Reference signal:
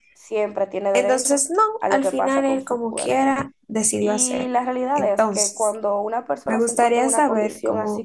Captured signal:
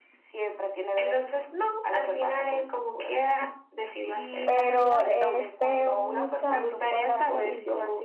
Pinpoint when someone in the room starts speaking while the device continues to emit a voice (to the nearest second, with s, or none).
4 s